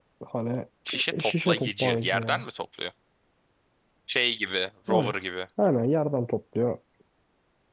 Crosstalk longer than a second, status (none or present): present